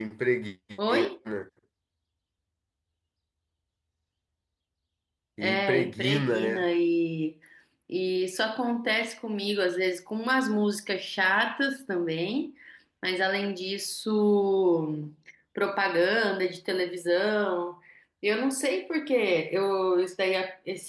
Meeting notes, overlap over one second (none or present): present